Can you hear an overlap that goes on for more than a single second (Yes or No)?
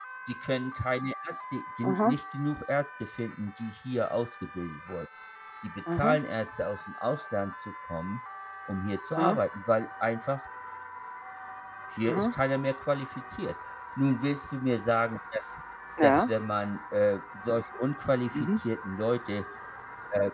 No